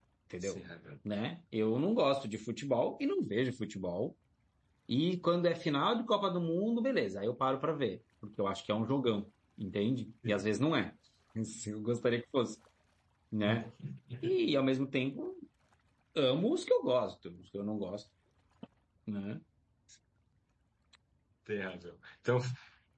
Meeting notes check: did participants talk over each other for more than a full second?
No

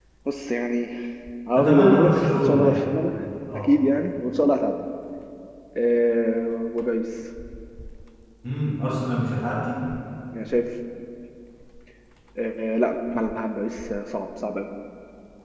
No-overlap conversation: No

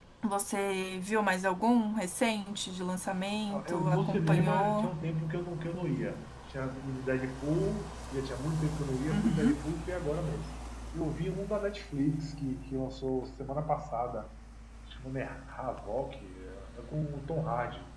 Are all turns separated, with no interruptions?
No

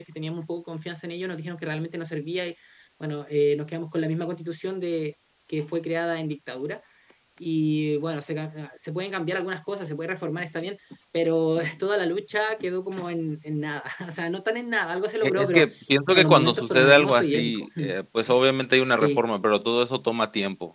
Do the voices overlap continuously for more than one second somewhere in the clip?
Yes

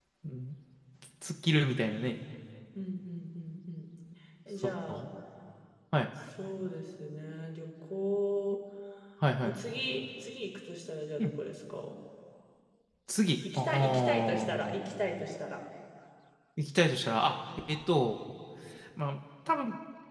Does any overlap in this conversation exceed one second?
Yes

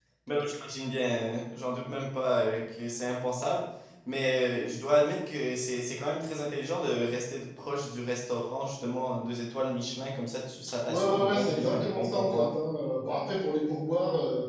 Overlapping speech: Yes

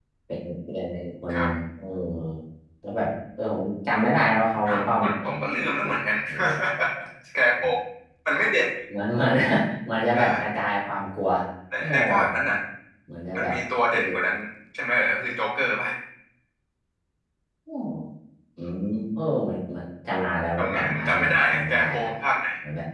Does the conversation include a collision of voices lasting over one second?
Yes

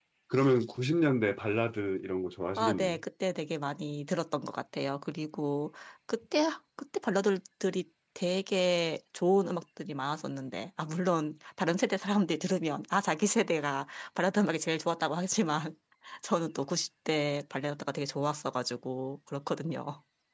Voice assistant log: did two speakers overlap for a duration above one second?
No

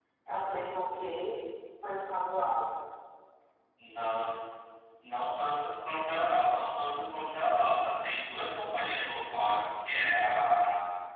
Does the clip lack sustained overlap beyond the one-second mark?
Yes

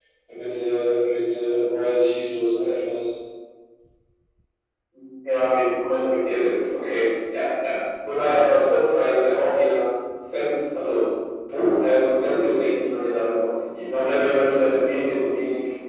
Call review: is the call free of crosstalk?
Yes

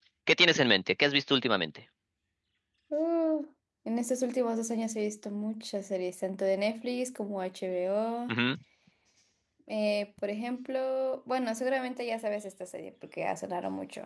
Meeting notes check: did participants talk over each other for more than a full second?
No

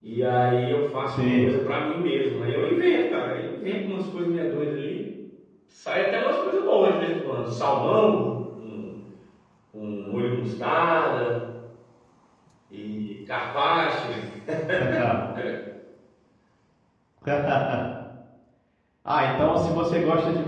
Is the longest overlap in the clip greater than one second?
No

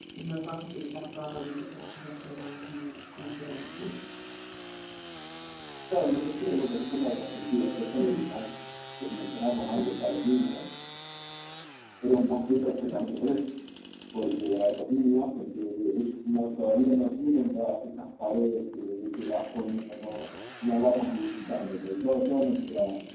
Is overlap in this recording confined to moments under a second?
Yes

